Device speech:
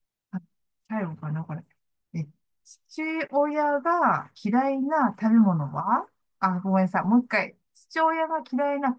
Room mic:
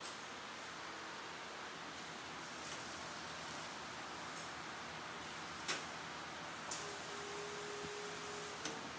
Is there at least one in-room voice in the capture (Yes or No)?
No